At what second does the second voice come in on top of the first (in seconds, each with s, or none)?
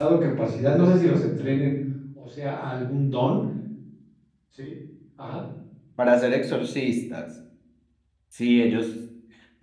none